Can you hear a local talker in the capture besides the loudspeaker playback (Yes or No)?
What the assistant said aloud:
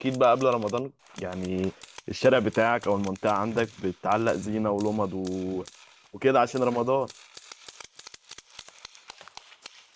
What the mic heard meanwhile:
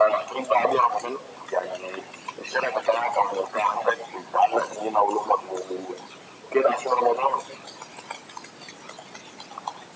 No